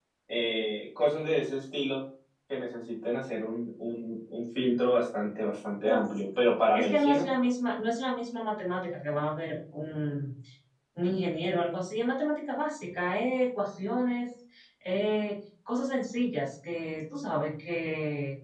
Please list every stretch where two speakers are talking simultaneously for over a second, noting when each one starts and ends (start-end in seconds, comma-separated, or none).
none